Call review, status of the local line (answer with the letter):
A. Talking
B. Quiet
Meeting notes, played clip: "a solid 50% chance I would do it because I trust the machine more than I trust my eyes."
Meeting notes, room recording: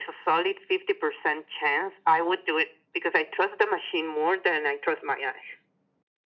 B